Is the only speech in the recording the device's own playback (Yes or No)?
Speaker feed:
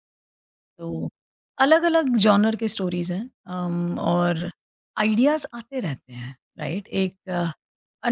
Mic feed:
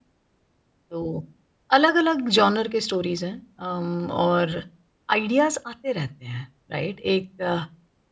Yes